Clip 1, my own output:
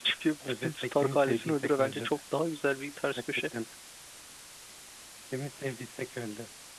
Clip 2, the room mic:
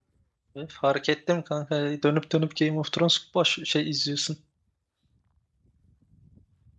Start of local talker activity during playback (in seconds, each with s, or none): 0.6 s